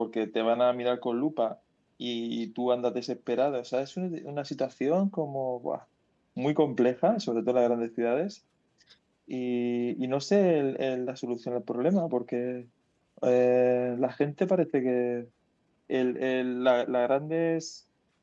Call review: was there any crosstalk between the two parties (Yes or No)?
No